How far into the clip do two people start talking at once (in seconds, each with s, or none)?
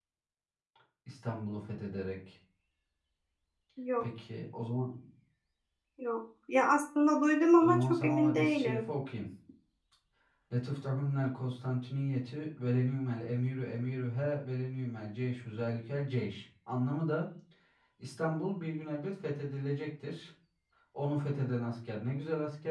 7.6 s